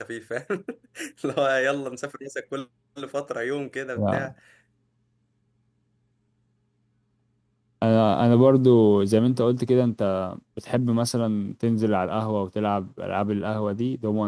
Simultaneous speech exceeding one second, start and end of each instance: none

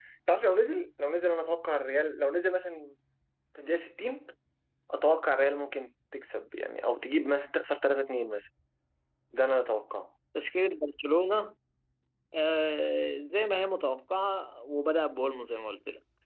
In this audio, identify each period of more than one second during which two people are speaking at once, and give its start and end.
none

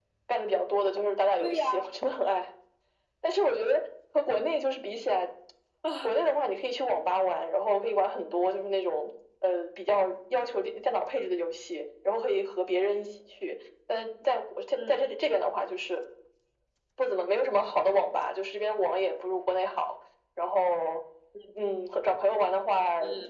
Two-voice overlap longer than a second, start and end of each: none

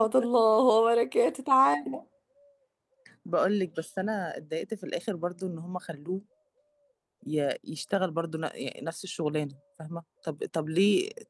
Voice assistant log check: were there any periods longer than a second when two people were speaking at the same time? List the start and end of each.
none

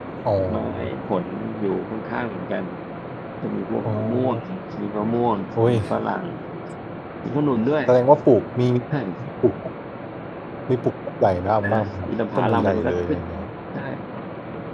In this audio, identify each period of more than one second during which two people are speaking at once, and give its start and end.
11.6-13.2

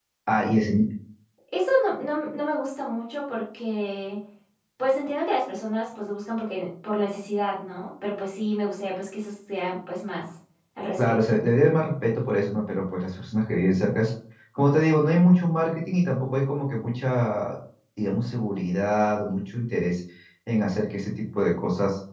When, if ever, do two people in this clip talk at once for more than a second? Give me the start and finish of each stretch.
none

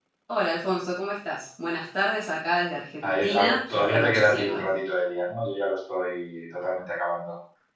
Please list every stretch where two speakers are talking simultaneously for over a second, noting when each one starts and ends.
3.0-4.6

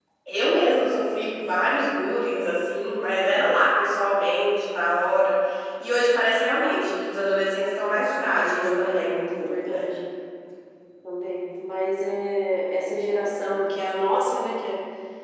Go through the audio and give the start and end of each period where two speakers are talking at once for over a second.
8.6-9.9

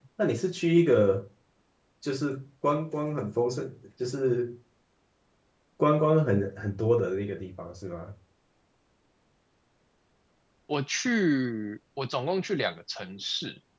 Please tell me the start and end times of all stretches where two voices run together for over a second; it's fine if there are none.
none

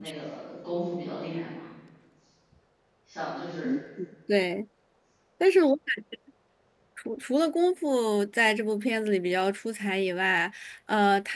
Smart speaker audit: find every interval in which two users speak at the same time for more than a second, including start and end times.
none

